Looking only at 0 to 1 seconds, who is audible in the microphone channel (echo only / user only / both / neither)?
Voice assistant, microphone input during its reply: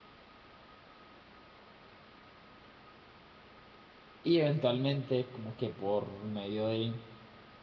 neither